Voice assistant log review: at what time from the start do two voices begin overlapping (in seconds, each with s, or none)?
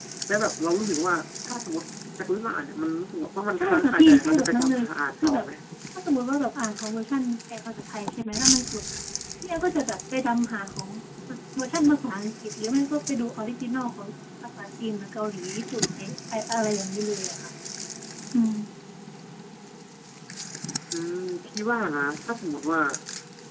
3.6 s